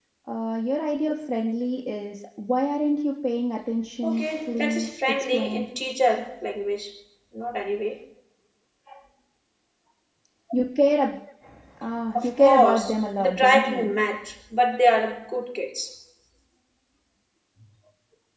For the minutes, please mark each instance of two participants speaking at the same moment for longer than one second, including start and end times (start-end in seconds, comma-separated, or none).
4.0-5.7, 12.2-13.9